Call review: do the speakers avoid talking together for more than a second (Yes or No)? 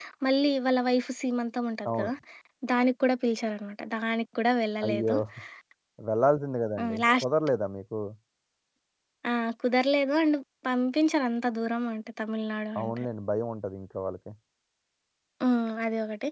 Yes